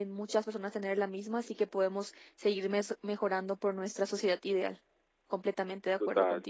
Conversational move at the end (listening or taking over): taking over